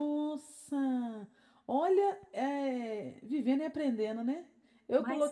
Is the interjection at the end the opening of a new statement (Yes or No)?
No